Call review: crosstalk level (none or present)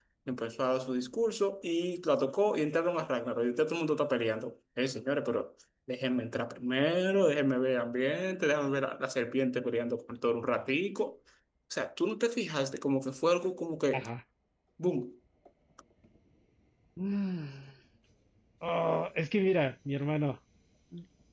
none